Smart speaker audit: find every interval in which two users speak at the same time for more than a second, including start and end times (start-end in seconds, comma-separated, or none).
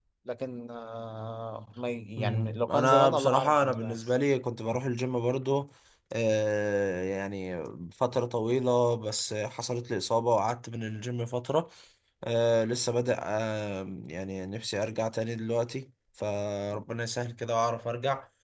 2.2-4.0